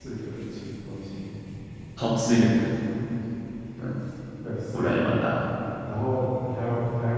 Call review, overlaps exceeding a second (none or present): none